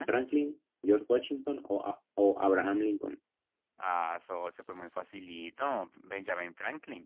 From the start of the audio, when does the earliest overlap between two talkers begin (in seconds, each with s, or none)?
none